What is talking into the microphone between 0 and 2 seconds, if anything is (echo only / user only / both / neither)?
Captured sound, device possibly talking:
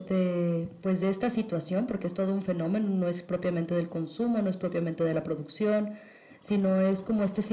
echo only